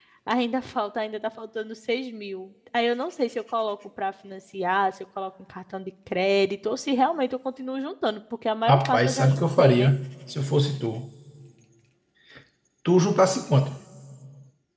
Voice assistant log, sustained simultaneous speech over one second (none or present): present